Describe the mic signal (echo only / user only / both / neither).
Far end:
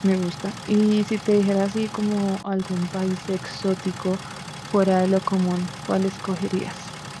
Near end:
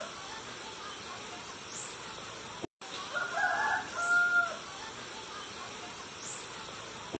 neither